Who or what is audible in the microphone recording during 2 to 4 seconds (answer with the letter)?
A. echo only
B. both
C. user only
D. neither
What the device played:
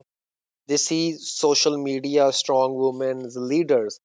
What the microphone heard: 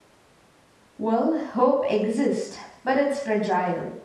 C